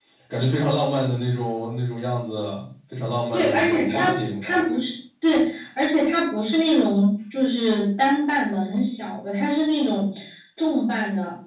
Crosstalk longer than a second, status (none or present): present